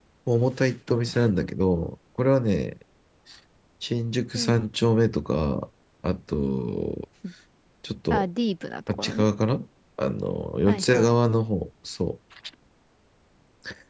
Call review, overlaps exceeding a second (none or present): none